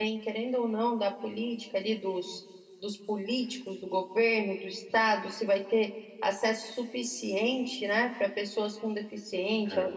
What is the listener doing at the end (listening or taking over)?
listening